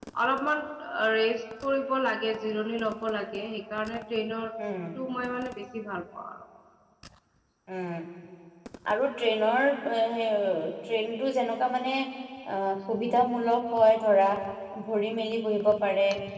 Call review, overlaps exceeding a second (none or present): none